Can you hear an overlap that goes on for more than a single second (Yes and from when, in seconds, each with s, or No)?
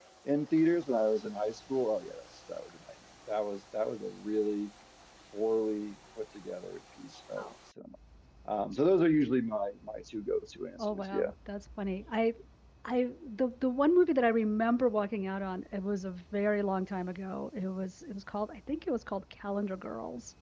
No